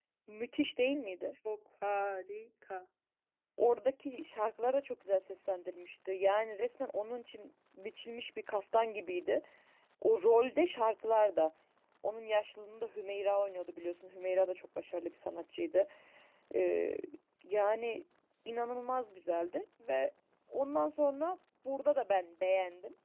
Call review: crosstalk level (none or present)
none